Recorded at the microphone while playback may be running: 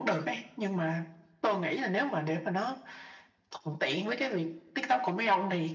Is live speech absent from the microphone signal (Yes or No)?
Yes